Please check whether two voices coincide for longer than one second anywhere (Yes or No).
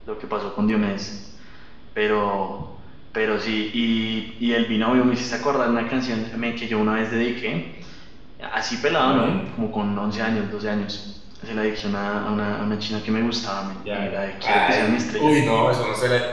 Yes